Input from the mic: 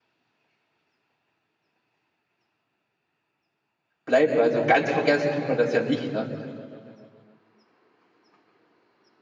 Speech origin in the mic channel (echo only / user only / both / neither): user only